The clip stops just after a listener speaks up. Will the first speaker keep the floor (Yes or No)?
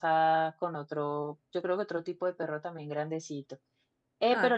Yes